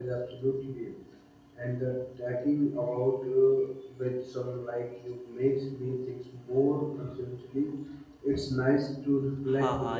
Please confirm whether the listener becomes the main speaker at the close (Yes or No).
Yes